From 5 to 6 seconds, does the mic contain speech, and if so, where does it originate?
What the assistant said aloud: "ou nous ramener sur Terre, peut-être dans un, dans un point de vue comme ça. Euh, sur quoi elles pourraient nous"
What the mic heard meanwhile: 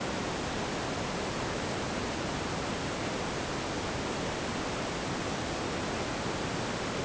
neither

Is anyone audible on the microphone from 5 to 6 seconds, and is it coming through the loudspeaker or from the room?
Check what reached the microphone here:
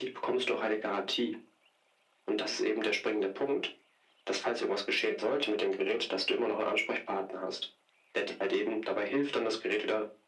echo only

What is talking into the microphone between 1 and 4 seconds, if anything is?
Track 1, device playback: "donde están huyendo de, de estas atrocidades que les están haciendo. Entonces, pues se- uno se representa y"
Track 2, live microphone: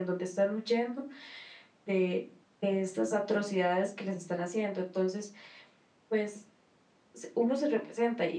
echo only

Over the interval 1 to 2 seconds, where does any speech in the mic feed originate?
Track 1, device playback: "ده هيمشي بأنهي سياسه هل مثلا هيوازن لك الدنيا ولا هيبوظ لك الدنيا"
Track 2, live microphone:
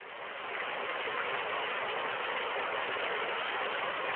neither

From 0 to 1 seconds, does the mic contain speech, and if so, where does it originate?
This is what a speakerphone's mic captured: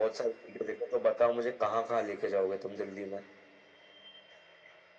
echo only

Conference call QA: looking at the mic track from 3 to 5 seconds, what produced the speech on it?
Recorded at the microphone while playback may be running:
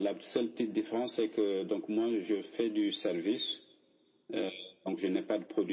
echo only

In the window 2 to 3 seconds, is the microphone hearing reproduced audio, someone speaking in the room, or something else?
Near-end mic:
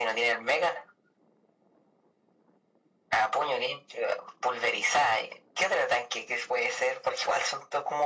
neither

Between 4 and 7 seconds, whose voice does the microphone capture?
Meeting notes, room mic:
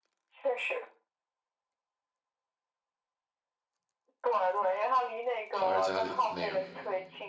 both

